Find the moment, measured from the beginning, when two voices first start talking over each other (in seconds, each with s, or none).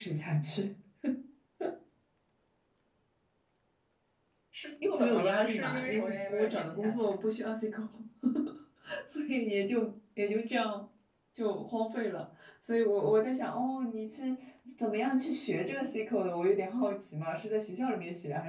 4.9 s